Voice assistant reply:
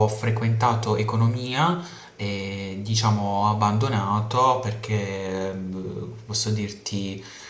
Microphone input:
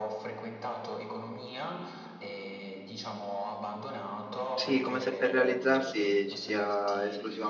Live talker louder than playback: Yes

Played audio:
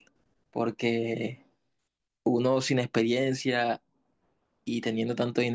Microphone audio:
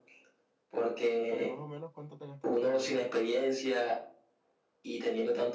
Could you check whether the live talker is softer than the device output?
Yes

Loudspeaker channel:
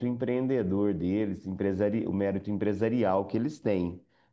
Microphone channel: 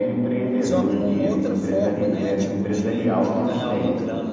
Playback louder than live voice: Yes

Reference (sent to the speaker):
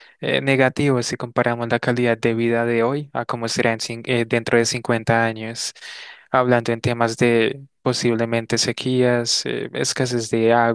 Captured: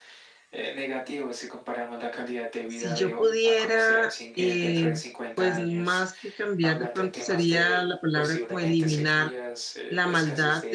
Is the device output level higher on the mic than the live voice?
No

